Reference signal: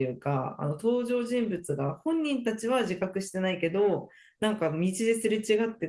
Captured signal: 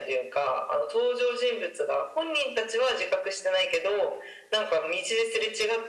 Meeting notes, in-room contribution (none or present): none